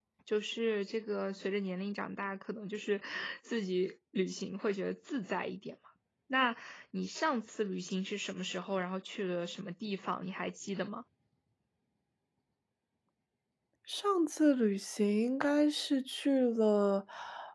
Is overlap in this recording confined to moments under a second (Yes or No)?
Yes